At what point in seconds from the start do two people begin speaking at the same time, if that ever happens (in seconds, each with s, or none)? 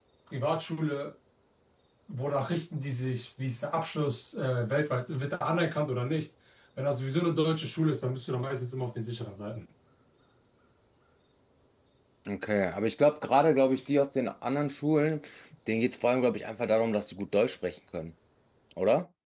none